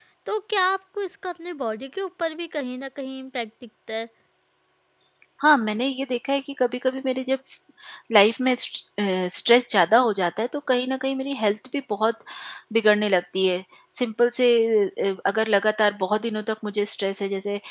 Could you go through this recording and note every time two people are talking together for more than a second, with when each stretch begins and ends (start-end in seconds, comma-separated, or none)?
none